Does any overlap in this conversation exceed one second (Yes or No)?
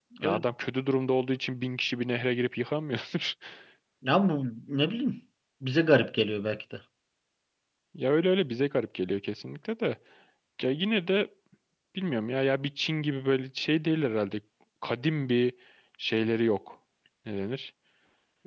No